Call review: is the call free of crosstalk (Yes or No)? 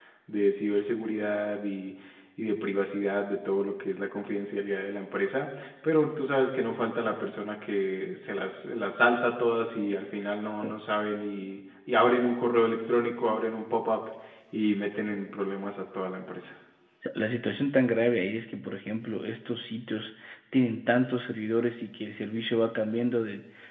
Yes